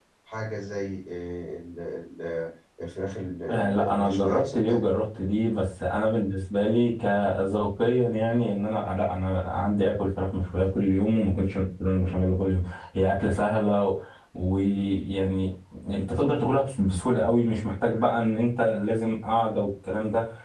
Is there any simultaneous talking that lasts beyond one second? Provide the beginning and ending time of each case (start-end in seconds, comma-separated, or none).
3.5-4.9